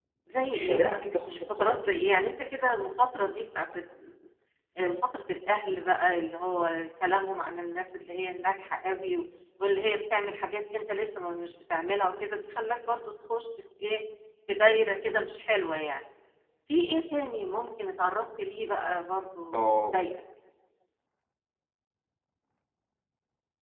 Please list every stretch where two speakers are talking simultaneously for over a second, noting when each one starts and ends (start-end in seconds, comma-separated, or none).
0.6-2.1